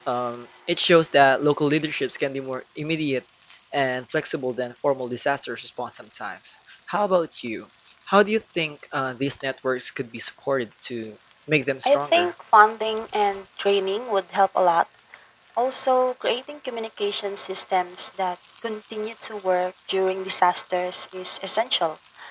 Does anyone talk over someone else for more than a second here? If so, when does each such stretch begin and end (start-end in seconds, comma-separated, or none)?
none